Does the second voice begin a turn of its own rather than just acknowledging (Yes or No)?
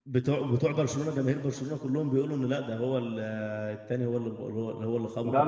Yes